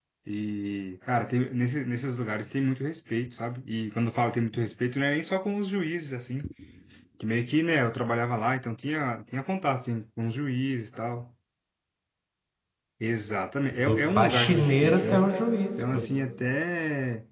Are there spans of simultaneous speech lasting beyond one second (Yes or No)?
Yes